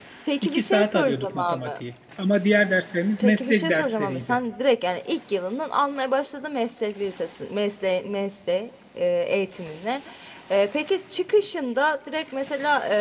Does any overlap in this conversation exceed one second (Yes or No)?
Yes